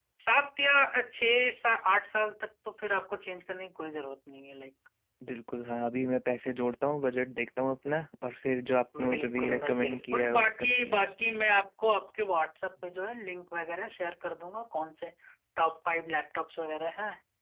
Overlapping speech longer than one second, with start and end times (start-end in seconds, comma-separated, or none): 9.1-11.4